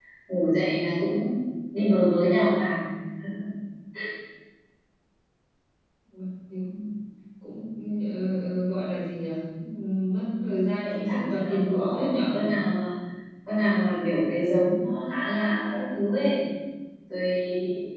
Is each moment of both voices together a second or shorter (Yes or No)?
No